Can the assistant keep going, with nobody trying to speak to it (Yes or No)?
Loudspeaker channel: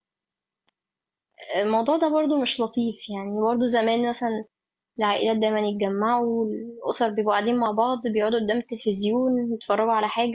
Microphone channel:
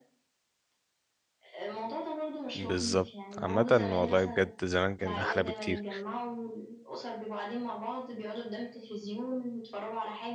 No